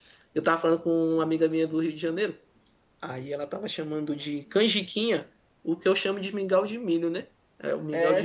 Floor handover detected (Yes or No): Yes